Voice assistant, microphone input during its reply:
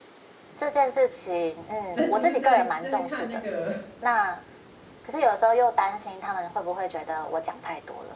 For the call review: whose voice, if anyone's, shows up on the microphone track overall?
both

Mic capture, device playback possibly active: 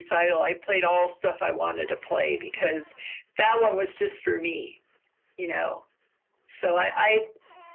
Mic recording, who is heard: echo only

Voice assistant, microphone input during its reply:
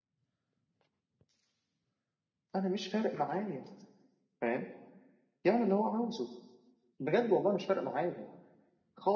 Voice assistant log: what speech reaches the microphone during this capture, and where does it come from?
user only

